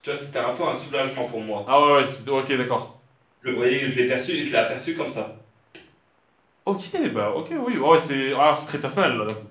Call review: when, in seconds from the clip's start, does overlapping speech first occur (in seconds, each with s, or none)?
none